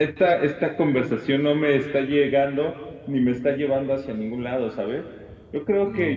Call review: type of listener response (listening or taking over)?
listening